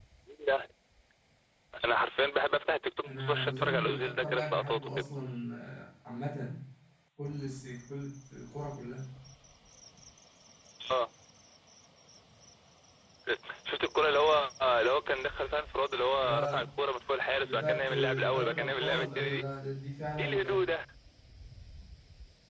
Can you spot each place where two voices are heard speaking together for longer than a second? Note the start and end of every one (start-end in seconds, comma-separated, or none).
3.0-4.9, 17.4-19.4